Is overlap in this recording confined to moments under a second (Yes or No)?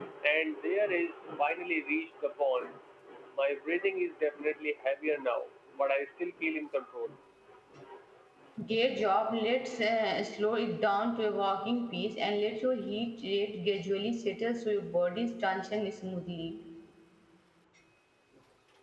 Yes